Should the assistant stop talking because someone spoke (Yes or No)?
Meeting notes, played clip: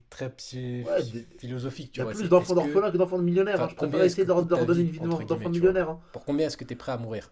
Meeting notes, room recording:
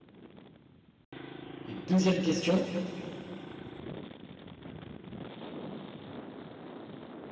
Yes